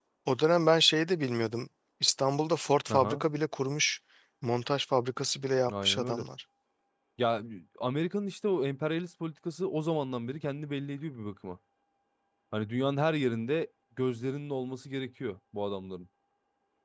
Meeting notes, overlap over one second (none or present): none